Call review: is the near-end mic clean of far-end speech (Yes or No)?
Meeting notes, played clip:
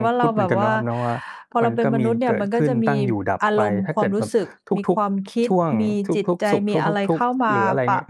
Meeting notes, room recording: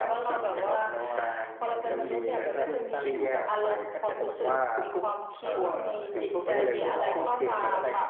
No